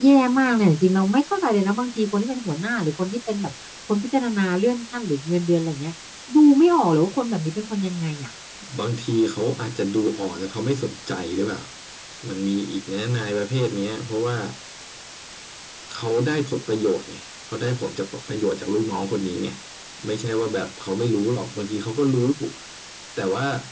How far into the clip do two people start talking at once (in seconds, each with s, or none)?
none